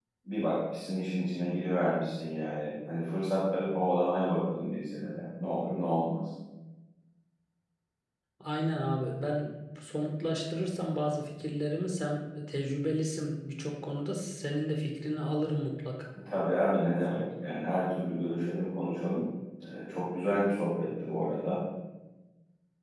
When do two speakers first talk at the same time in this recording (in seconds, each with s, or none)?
none